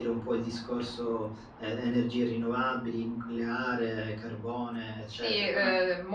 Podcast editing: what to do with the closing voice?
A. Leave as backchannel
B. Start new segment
B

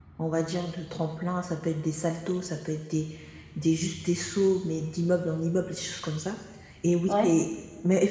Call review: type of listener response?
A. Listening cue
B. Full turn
A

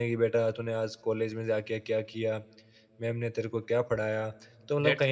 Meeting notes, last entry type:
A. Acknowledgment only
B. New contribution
B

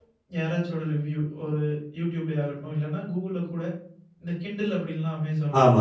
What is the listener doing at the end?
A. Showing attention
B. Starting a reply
A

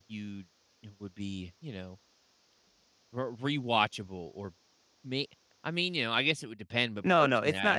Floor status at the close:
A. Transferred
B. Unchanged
A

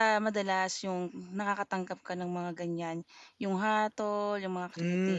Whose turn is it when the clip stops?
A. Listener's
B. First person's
A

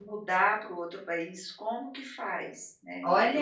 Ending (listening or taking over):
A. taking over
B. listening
A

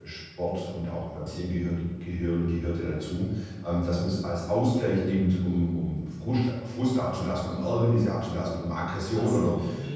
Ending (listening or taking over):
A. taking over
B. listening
B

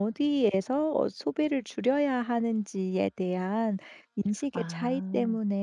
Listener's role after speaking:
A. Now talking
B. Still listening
B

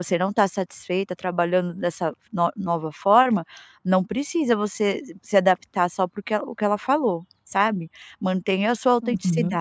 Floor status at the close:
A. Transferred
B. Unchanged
B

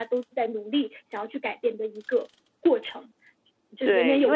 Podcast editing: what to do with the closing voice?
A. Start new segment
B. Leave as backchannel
A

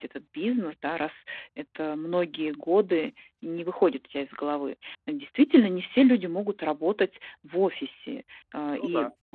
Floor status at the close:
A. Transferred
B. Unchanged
B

